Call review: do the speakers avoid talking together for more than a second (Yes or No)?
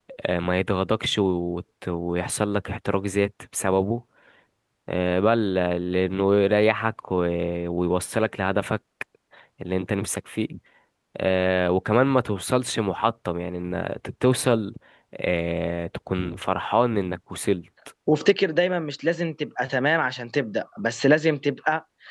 Yes